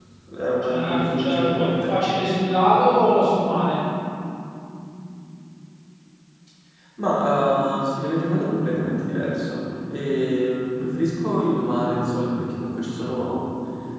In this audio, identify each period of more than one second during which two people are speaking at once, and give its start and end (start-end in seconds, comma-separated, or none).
0.6-2.0